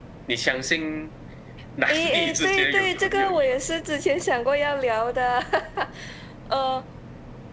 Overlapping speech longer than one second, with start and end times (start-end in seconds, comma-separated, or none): 1.9-3.6